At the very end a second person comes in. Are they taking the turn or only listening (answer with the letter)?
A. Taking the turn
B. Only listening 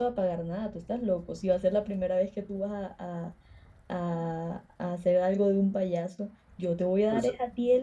B